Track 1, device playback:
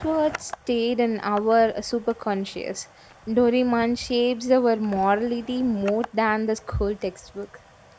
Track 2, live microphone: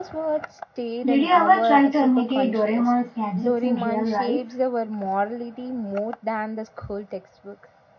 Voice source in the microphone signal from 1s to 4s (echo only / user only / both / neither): both